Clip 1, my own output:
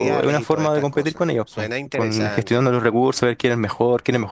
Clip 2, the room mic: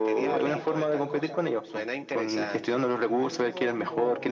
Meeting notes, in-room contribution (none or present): present